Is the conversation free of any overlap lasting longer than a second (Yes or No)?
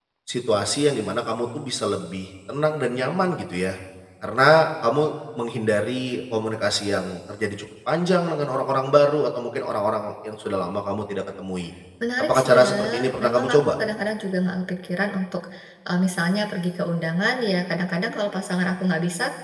No